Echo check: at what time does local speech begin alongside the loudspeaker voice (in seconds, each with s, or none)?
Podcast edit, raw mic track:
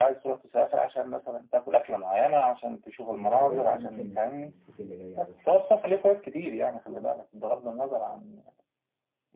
3.2 s